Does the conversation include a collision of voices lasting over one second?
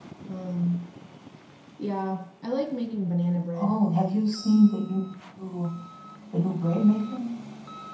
No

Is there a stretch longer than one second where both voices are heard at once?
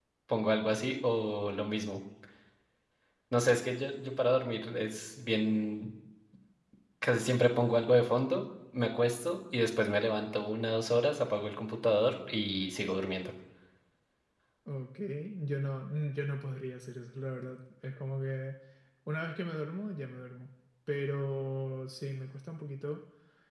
No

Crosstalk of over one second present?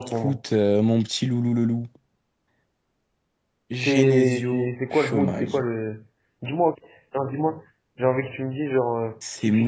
Yes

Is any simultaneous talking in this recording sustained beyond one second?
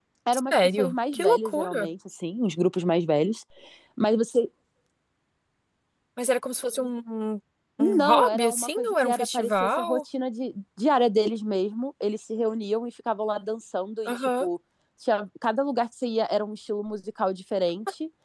Yes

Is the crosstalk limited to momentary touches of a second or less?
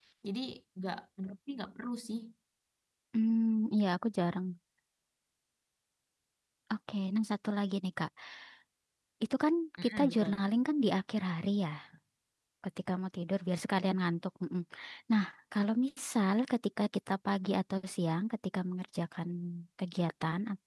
Yes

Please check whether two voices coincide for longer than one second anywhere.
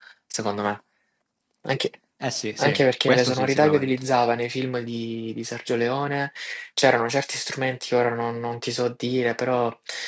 Yes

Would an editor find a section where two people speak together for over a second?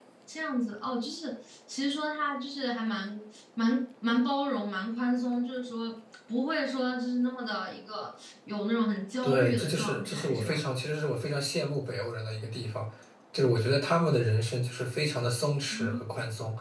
Yes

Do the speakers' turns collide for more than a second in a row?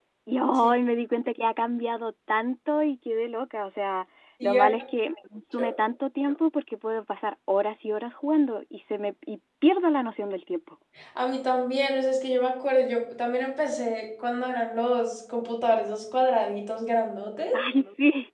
No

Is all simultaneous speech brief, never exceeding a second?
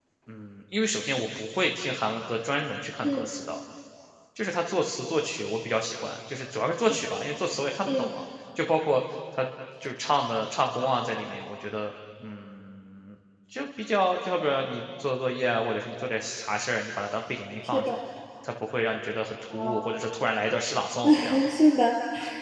Yes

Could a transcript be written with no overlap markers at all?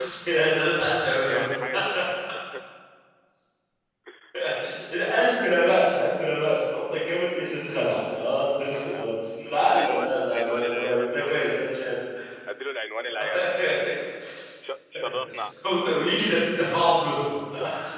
No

